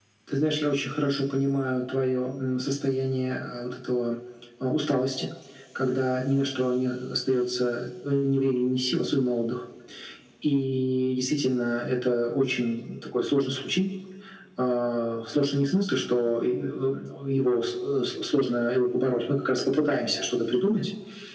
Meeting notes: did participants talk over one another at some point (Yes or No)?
No